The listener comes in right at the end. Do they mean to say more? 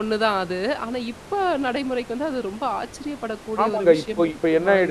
Yes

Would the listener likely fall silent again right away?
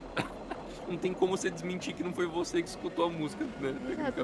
No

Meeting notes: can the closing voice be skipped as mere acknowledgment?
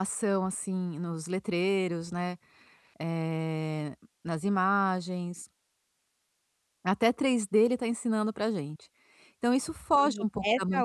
No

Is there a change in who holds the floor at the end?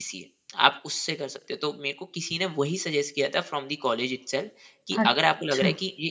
No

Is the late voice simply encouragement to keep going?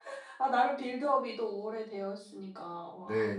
No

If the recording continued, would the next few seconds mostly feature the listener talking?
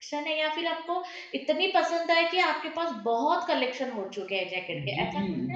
Yes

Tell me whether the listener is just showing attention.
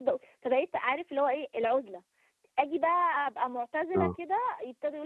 Yes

